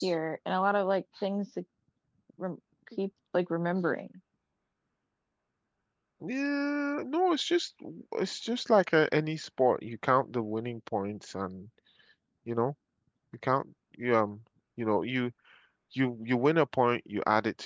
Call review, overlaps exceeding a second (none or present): none